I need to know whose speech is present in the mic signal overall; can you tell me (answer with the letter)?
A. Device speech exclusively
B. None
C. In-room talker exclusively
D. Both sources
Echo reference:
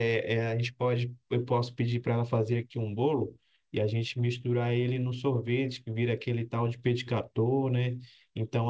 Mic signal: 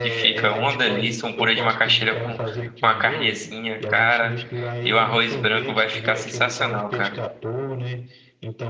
D